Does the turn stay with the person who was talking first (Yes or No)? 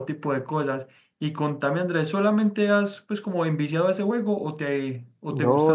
No